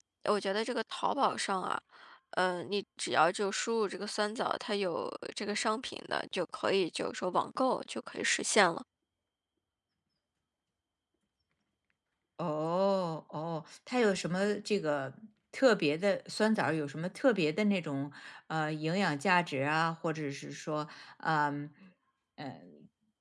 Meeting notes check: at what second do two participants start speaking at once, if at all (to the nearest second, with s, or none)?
none